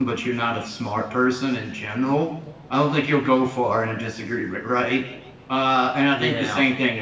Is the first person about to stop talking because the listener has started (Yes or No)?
No